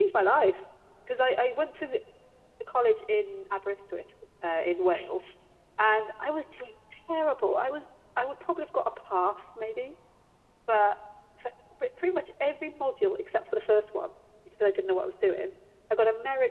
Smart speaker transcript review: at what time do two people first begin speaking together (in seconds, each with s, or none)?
none